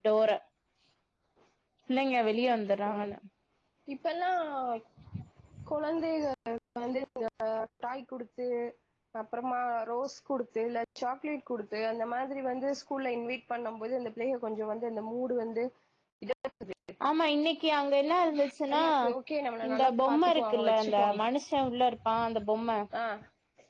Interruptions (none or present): present